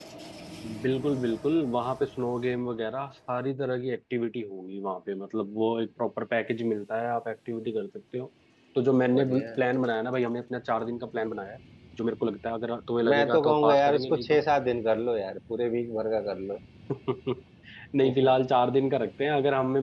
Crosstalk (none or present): present